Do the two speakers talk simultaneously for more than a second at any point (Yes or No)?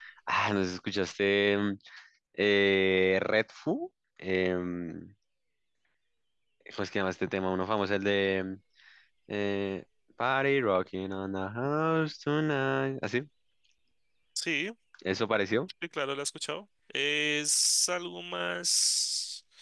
No